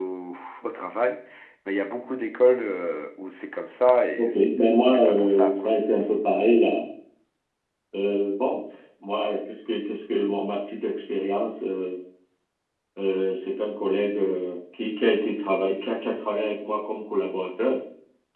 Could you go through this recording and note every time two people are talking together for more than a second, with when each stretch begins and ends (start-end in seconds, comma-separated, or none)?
4.2-5.7